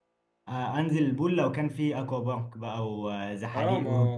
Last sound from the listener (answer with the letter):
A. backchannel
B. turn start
B